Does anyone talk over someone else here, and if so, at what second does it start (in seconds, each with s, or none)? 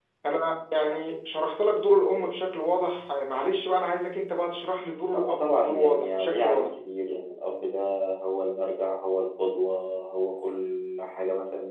5.1 s